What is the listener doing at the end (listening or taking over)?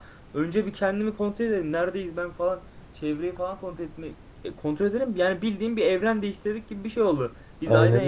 listening